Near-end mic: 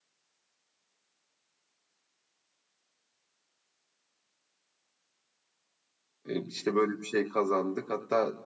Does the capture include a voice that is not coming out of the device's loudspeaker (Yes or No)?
Yes